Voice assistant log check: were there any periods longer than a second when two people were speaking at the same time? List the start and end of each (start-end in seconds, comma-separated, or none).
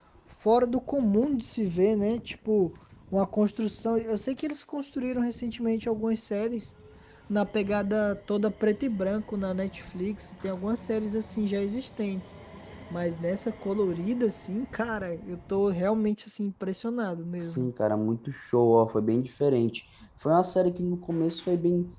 none